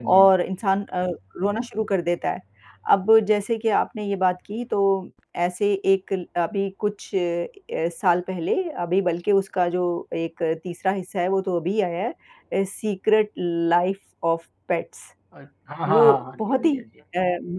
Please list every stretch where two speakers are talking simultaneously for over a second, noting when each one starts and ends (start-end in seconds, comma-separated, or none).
none